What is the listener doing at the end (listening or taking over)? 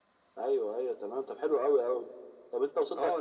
taking over